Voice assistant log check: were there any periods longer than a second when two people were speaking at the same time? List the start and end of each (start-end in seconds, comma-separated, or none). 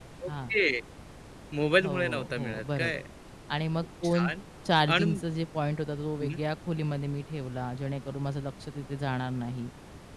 1.8-3.0